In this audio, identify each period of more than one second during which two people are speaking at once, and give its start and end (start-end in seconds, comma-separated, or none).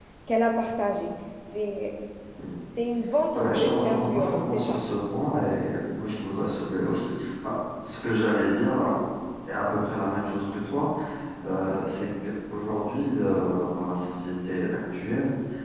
3.3-4.8